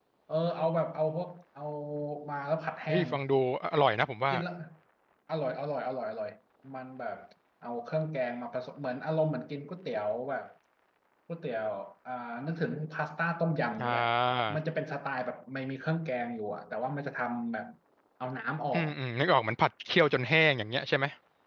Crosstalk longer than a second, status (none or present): none